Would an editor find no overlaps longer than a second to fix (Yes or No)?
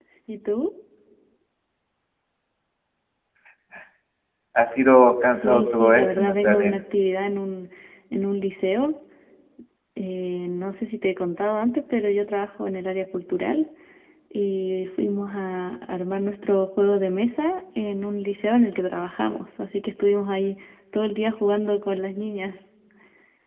No